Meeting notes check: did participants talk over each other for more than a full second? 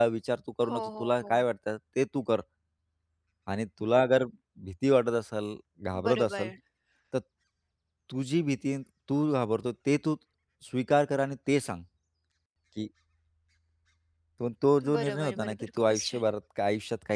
Yes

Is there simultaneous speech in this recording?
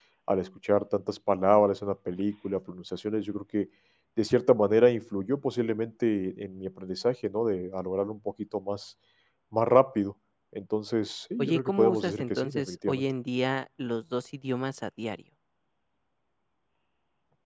Yes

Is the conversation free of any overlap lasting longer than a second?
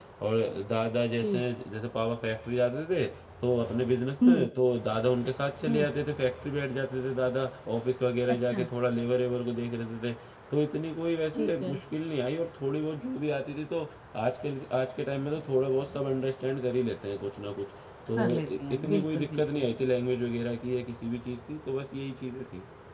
No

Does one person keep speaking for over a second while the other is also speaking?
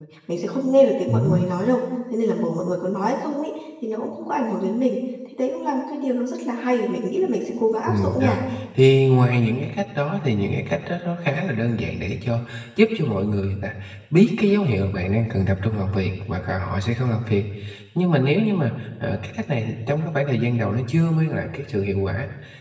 No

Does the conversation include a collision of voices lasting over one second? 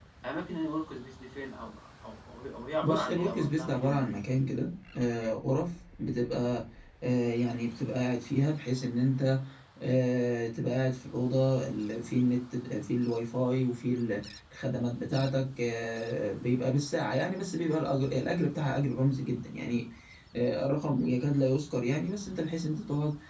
Yes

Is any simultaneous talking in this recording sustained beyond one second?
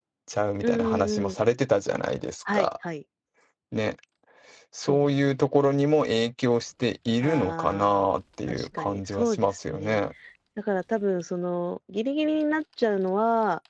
Yes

